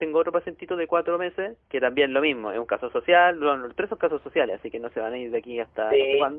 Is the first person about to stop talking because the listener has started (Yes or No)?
Yes